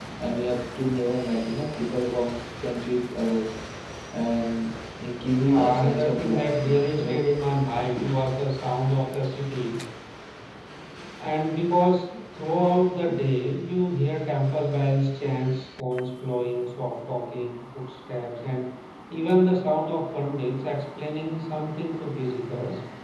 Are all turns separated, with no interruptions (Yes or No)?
No